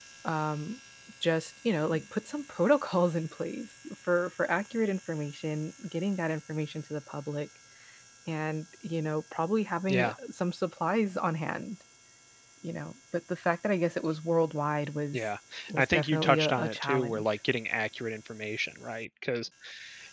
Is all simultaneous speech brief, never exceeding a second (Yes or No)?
No